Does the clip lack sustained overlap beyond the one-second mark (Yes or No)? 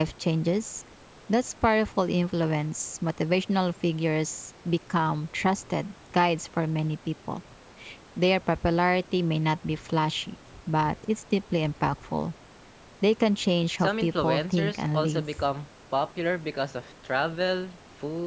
No